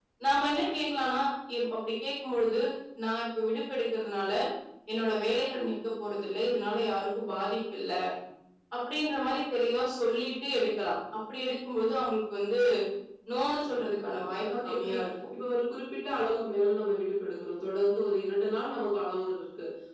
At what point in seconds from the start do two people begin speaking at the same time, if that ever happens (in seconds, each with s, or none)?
13.7 s